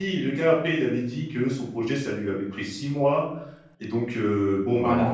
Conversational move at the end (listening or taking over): listening